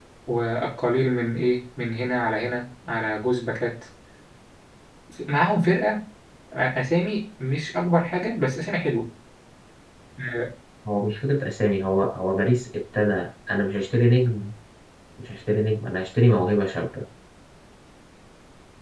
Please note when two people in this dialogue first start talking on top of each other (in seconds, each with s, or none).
none